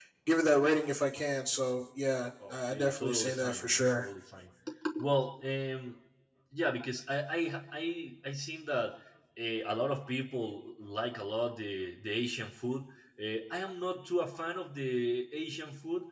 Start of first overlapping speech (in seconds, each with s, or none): 2.4 s